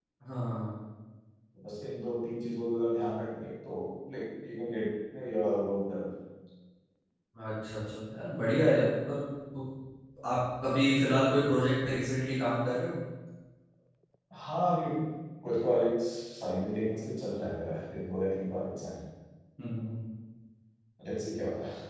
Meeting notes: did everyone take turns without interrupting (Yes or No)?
Yes